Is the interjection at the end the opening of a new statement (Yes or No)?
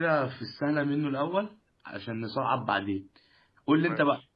No